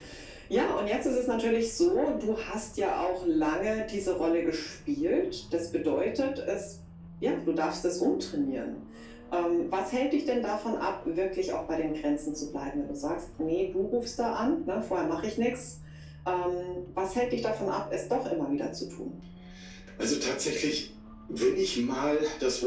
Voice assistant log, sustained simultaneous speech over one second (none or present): none